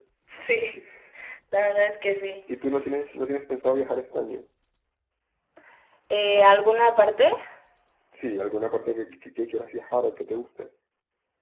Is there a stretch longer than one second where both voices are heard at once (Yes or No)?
No